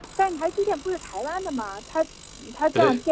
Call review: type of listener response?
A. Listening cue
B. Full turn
A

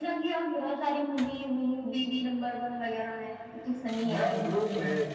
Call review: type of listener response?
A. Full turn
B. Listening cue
A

